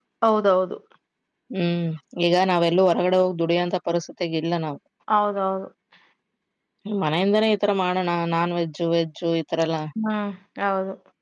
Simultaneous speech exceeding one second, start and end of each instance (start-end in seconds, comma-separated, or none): none